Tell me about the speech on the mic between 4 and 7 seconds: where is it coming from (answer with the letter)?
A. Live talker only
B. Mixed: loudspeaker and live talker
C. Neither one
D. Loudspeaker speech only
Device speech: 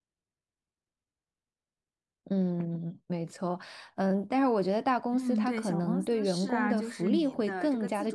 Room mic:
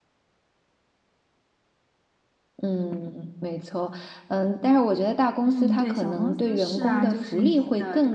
D